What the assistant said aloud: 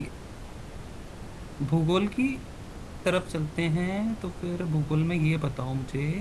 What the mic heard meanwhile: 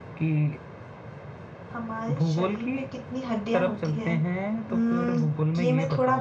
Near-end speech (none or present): present